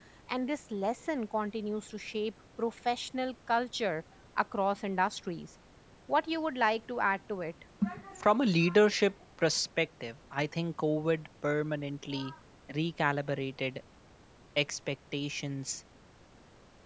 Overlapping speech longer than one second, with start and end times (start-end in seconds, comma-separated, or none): none